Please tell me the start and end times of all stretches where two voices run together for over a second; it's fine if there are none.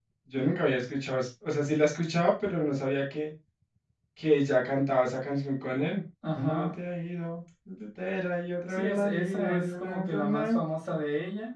8.7-10.6

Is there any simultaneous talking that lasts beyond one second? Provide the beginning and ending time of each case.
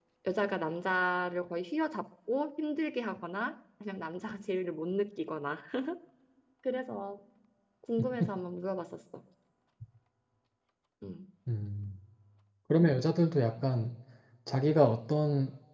none

